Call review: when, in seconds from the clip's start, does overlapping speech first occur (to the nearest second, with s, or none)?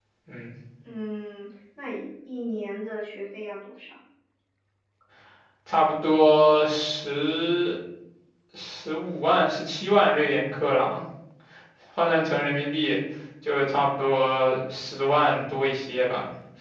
none